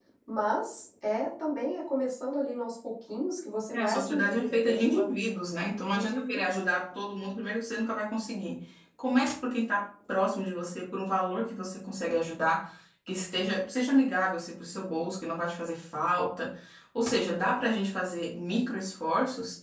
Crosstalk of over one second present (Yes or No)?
Yes